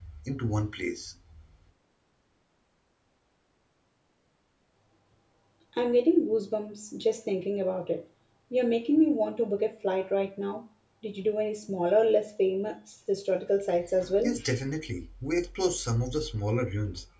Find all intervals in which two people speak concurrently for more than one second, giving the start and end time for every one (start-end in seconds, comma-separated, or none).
none